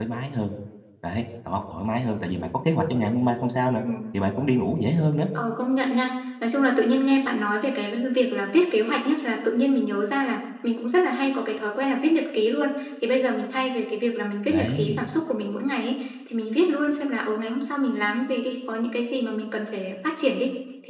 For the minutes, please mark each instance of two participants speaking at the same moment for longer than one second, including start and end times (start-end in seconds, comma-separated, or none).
none